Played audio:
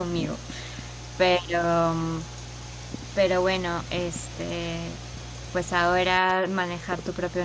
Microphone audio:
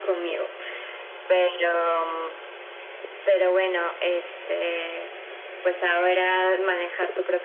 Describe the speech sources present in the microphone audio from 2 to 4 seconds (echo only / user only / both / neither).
echo only